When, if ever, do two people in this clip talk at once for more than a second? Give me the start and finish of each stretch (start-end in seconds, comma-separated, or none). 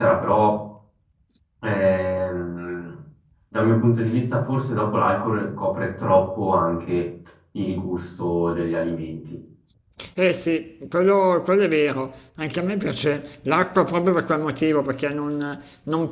none